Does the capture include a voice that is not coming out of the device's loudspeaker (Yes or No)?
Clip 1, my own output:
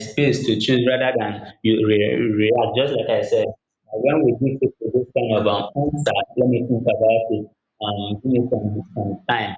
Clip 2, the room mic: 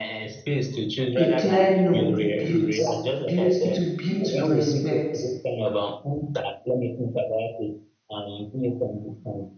Yes